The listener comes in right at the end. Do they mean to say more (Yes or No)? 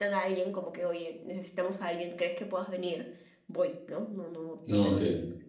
No